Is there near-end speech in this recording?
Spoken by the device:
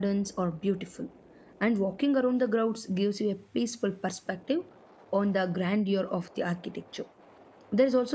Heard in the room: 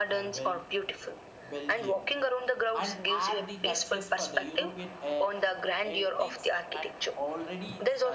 Yes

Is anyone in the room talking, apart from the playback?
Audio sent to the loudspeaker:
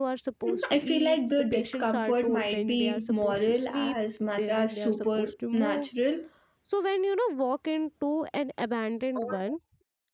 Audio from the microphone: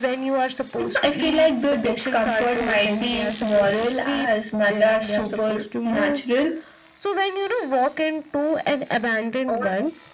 No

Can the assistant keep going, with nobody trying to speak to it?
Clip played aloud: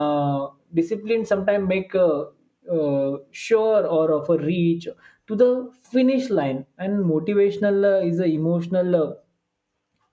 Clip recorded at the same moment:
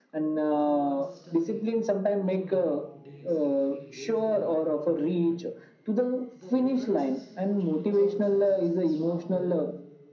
No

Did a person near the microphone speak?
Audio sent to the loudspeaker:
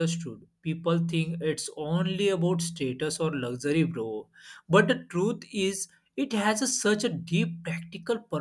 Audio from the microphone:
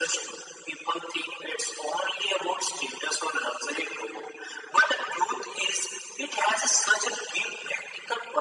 No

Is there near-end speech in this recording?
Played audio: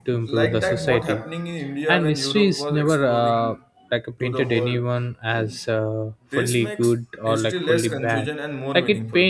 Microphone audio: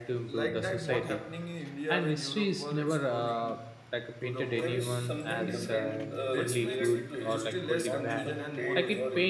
Yes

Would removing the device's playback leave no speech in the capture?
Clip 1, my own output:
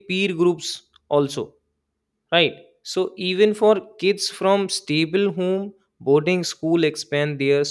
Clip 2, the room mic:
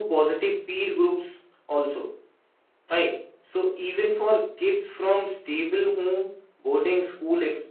Yes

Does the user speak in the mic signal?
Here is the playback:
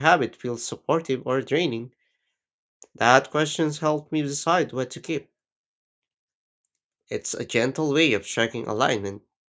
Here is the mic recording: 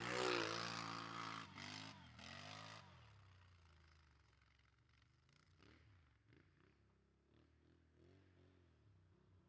No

